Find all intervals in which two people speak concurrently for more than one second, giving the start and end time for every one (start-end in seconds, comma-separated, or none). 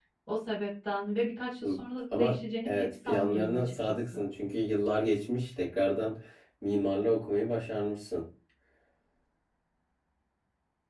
2.1-4.2